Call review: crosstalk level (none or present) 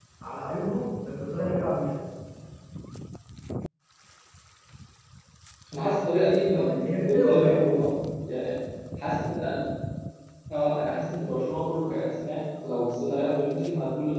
present